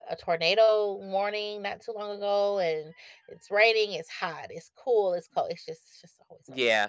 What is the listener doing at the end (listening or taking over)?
taking over